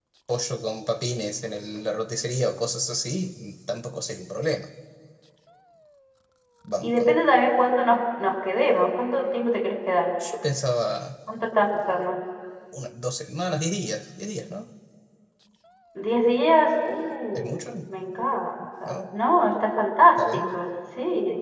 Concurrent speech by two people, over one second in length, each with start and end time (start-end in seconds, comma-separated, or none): none